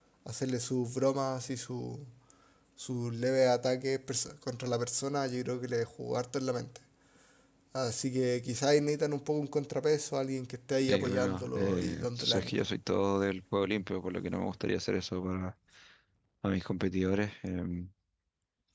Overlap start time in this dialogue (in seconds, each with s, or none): 10.9 s